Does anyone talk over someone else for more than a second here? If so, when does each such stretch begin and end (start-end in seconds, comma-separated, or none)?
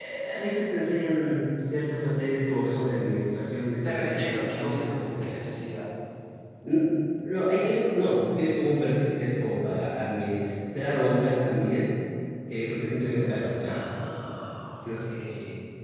3.8-5.4